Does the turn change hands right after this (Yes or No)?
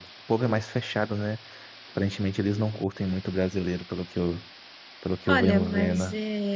Yes